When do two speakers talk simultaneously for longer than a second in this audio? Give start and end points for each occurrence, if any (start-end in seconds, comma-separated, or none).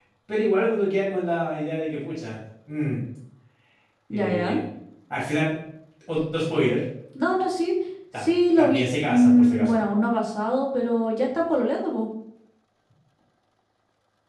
8.2-9.8